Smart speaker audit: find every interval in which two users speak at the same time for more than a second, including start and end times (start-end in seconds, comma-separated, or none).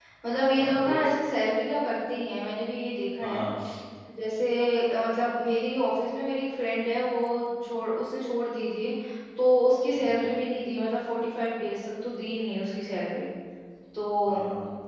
none